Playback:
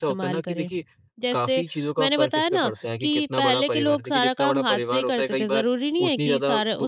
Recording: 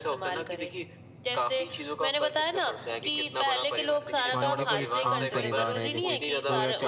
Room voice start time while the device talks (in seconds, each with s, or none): 4.3 s